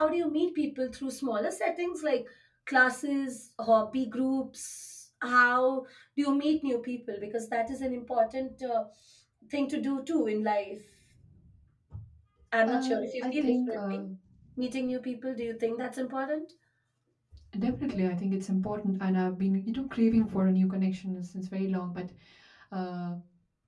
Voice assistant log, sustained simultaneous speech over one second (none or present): present